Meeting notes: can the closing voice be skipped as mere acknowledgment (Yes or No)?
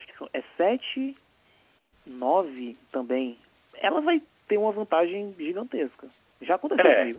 No